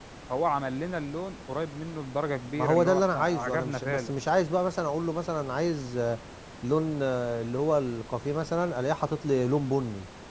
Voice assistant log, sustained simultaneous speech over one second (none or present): present